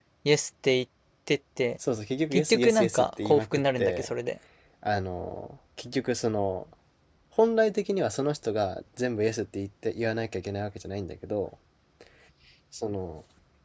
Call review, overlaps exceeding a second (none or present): present